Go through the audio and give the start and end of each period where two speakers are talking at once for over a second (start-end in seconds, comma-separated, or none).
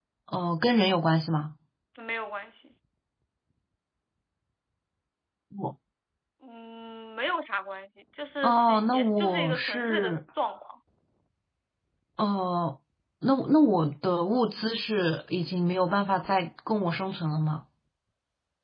8.4-10.2